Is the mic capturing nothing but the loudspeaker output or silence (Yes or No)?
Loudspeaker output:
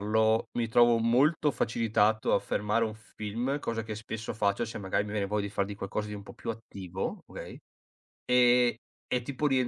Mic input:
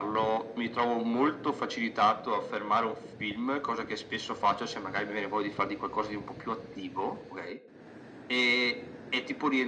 Yes